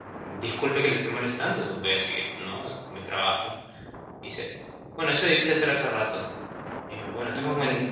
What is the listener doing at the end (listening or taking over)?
listening